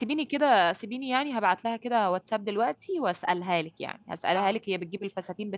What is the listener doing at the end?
listening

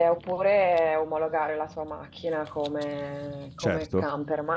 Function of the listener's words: listening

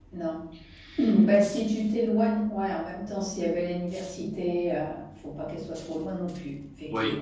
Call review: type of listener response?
taking over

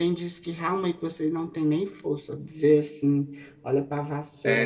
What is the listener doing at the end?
taking over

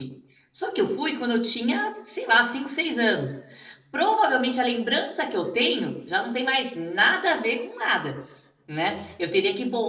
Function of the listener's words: listening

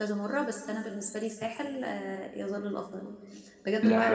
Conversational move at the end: listening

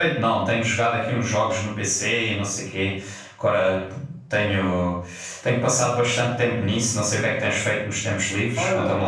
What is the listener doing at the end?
taking over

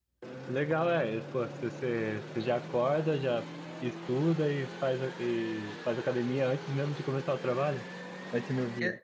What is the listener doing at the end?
taking over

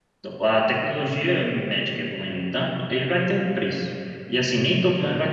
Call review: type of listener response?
listening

